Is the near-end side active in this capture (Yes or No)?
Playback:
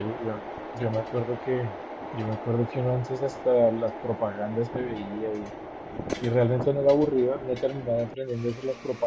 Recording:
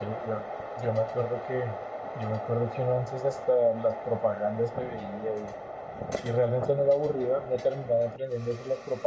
No